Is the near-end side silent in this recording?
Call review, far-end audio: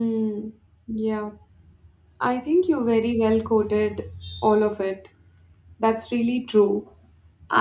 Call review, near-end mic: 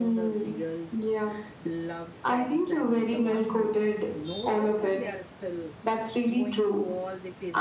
No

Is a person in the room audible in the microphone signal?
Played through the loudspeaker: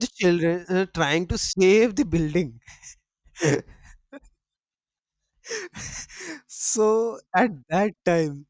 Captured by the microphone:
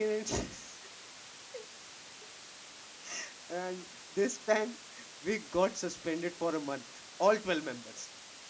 Yes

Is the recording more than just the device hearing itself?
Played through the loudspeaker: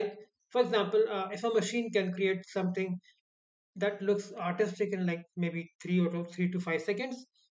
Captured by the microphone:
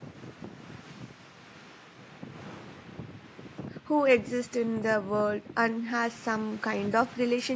Yes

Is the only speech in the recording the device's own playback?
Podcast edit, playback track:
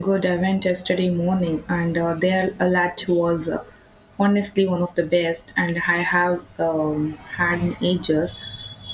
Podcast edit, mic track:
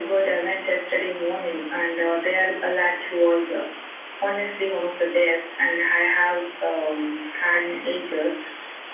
Yes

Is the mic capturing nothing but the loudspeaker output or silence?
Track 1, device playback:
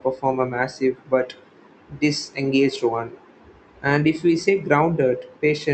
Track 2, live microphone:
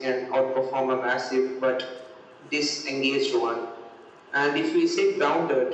Yes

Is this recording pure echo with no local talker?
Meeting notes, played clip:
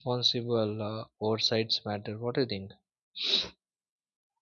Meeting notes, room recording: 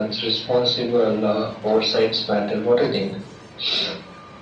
Yes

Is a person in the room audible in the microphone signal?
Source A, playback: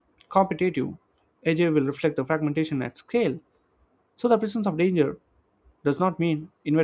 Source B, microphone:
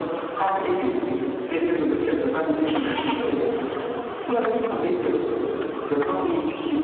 No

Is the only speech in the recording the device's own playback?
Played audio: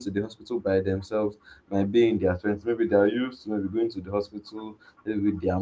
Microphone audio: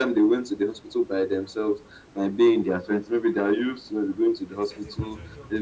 No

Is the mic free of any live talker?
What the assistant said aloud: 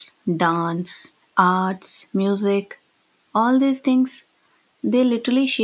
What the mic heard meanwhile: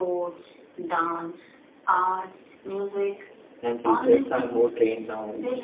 No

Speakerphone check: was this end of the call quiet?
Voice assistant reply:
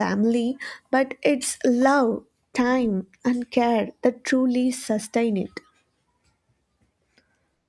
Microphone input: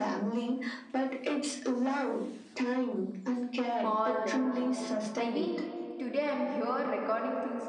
No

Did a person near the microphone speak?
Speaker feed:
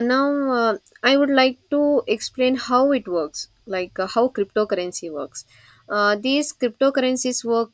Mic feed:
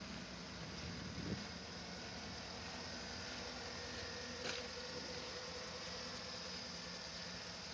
No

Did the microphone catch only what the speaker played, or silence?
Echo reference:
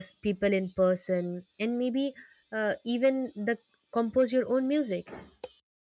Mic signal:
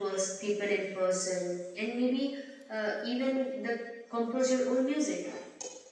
Yes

